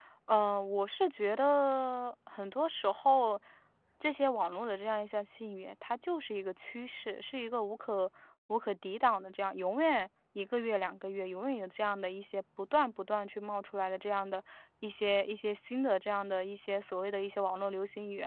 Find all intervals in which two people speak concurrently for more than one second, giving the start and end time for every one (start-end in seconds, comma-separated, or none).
none